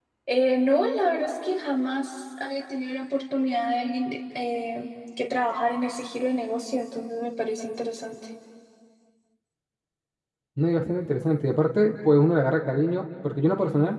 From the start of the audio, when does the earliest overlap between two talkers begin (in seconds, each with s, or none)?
none